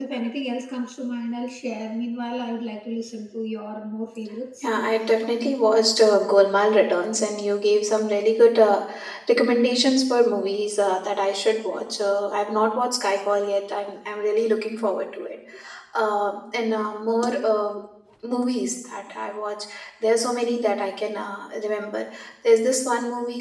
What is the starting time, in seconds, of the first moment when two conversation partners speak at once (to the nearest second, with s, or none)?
none